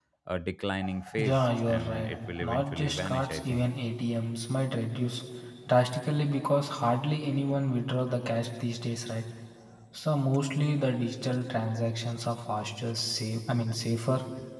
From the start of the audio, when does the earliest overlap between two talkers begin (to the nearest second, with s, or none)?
1 s